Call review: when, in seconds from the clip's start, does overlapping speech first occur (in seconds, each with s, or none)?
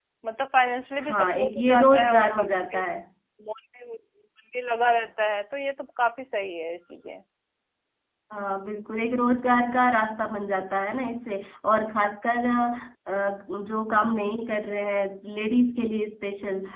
1.1 s